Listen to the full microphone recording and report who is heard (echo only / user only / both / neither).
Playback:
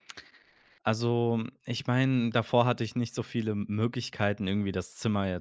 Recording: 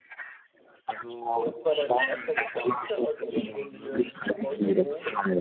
both